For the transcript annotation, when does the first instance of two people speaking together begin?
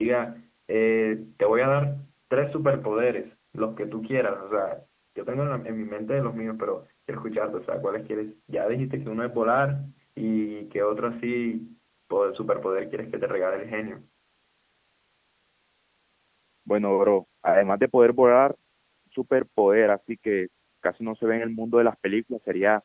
none

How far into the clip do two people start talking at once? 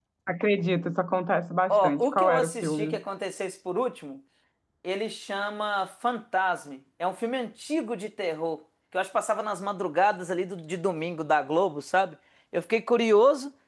2 s

